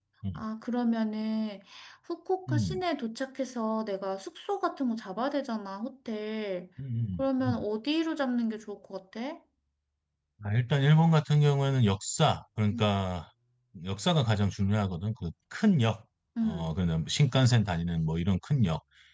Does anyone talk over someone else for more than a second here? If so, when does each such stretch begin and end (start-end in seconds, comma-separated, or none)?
none